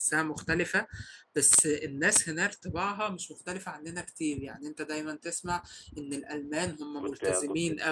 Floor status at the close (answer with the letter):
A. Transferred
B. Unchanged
B